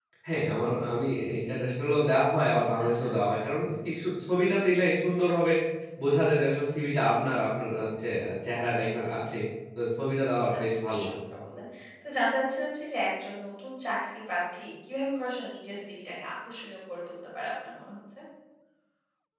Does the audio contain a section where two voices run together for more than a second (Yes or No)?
No